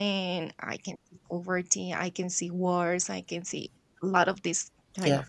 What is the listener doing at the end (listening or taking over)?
listening